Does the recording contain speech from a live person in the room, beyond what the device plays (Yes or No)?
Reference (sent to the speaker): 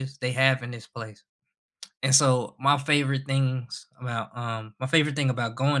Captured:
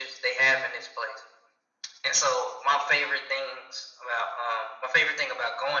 No